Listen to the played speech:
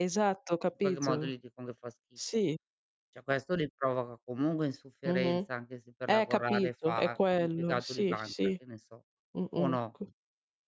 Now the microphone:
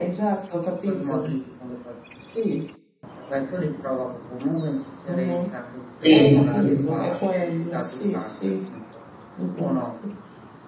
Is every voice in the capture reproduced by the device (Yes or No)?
No